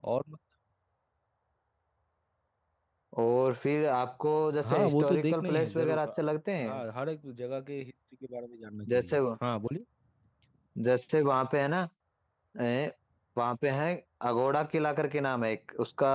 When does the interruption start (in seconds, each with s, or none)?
4.6 s